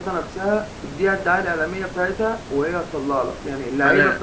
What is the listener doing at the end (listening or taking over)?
listening